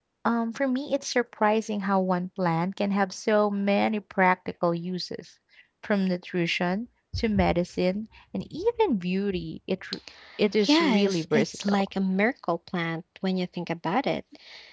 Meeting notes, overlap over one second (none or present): present